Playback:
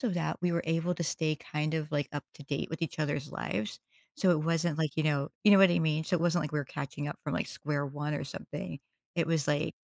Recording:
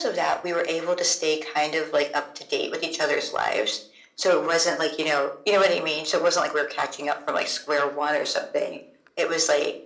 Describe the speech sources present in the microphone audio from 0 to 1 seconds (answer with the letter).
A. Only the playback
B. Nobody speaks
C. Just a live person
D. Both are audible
A